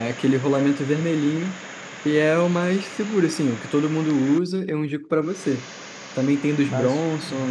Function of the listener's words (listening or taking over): listening